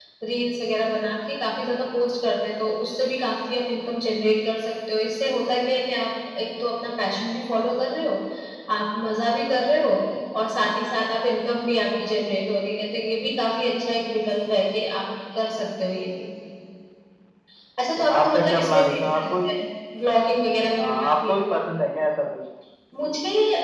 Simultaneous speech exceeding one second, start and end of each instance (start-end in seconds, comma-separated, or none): 18.1-19.5